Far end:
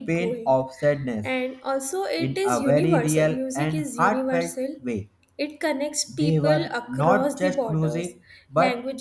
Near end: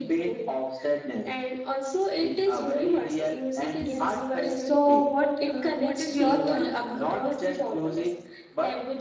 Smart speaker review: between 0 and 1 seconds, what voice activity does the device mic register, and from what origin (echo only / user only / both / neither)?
echo only